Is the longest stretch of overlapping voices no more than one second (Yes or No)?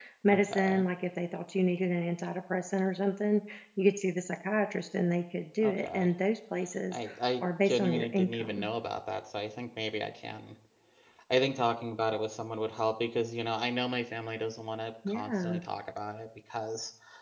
No